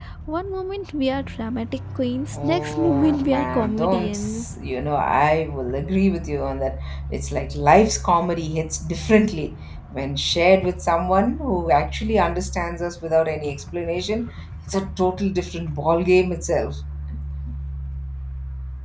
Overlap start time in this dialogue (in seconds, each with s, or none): 2.3 s